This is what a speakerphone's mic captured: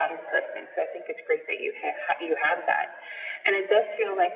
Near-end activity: none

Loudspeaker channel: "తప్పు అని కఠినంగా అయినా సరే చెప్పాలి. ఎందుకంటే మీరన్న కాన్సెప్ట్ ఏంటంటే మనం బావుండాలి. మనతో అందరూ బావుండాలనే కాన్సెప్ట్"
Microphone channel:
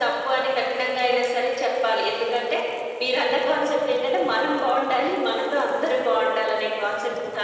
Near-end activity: none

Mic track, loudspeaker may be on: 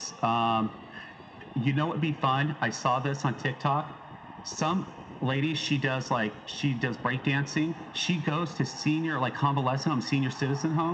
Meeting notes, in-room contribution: none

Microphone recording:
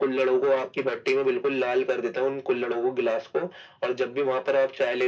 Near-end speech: none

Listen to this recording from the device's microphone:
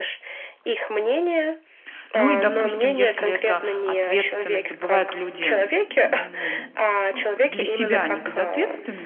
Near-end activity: present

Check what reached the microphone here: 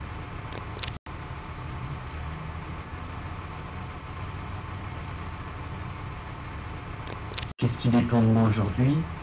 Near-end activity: present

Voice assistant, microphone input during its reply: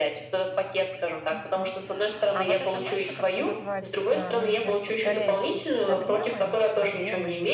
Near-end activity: present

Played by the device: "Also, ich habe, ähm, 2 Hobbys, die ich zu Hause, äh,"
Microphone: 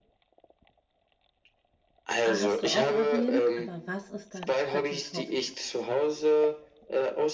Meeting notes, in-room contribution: present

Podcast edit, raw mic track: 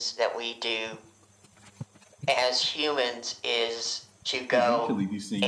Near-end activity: present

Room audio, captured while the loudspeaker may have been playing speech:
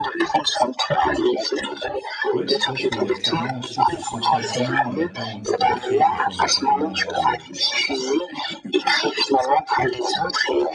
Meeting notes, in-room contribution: present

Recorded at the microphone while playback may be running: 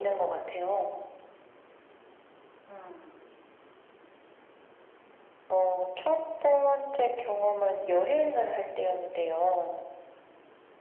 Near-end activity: none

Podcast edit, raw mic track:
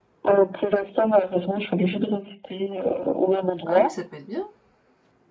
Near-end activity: present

